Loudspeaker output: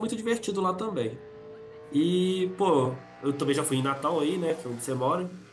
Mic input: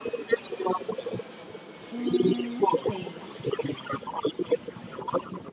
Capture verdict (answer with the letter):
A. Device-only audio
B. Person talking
B